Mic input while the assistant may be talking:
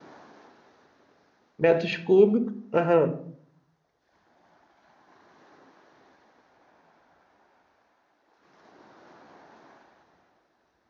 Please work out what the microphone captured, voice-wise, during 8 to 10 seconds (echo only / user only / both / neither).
neither